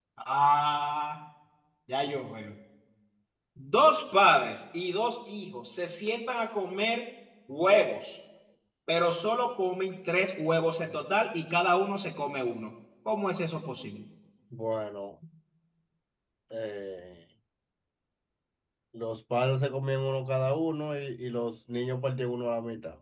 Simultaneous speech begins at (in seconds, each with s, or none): none